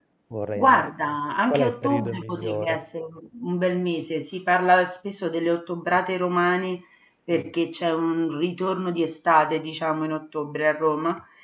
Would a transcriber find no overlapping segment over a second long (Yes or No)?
No